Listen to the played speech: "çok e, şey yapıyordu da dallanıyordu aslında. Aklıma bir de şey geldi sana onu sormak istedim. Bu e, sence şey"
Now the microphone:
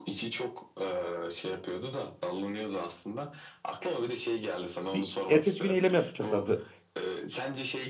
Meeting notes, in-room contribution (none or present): present